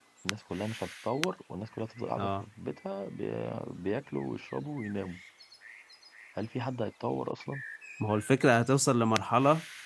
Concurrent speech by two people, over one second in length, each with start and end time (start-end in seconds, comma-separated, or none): none